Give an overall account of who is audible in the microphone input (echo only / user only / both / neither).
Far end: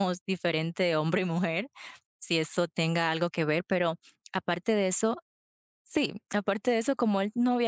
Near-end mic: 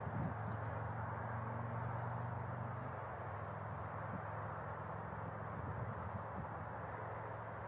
neither